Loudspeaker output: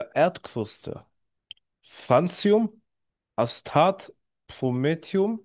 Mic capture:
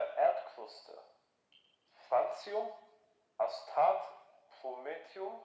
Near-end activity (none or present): none